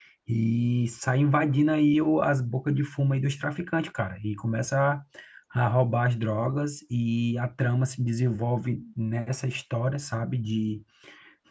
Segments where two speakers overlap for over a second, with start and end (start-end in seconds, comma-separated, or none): none